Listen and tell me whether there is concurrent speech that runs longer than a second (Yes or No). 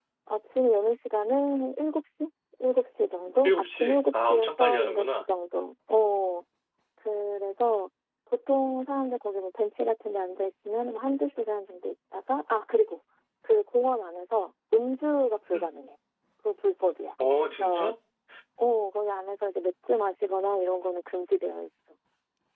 Yes